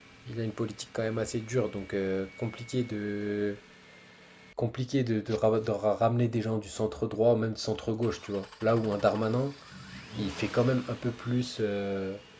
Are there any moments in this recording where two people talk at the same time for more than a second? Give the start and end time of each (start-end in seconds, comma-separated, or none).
none